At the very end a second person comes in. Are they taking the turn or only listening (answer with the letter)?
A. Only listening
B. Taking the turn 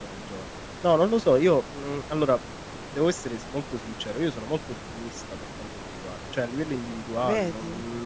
A